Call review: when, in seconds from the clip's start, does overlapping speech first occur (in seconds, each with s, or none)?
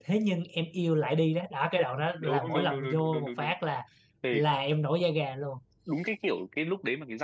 2.2 s